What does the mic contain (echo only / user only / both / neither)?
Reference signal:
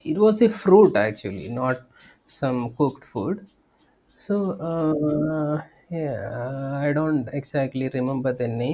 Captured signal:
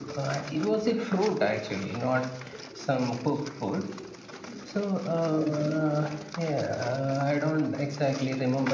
echo only